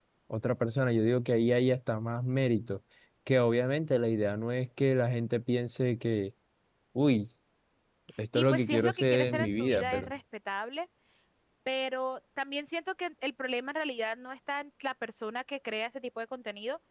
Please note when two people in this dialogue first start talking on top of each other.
8.3 s

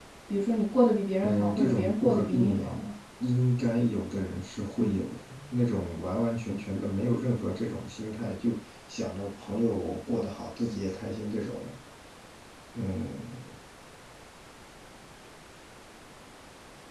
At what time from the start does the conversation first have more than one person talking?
1.2 s

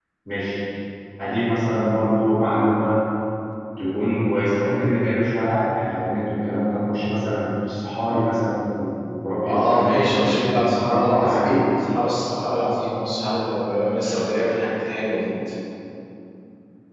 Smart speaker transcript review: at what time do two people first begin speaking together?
9.5 s

